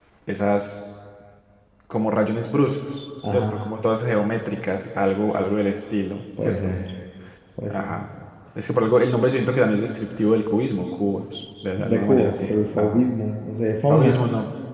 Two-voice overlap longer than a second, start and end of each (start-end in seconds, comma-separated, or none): 11.8-13.0